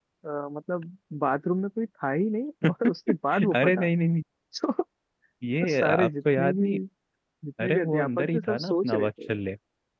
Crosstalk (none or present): present